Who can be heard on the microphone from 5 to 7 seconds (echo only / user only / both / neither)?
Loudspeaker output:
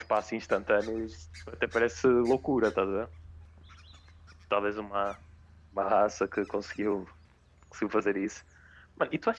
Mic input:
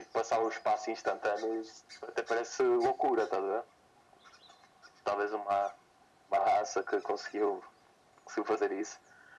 echo only